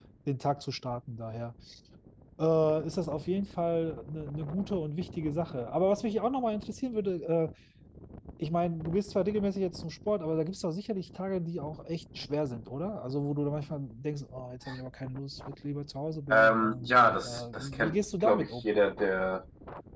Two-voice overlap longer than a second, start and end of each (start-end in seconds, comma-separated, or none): 16.3-18.6